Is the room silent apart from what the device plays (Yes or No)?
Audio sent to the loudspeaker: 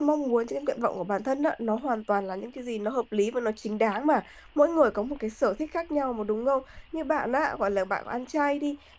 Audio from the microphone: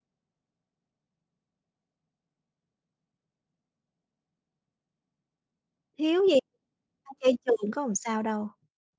No